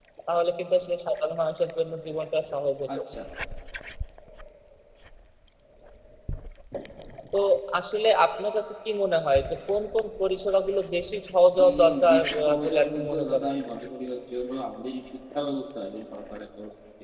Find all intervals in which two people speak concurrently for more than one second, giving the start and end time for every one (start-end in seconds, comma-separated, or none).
11.7-13.5